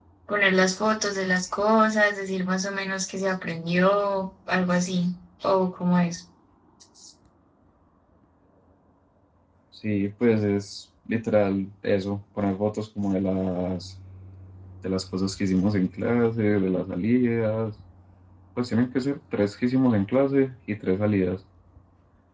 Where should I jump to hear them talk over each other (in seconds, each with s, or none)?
none